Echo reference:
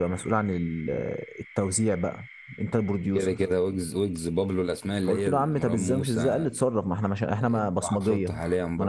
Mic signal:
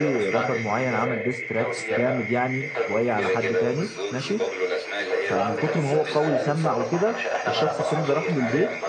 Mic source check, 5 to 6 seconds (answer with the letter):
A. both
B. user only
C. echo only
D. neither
A